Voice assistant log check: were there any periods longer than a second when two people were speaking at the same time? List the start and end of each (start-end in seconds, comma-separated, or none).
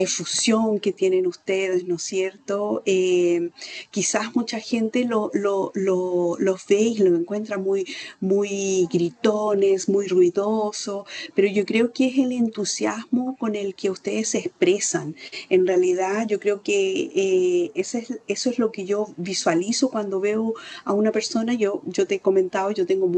none